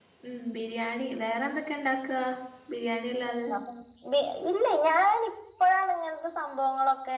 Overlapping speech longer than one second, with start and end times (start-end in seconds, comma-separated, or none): none